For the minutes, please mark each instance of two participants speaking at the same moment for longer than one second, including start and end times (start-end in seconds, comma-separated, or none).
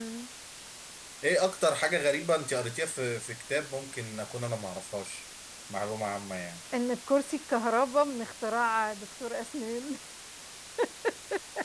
none